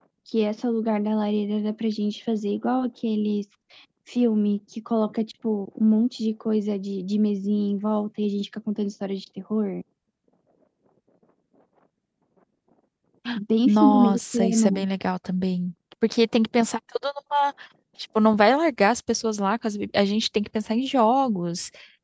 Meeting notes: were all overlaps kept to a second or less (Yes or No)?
No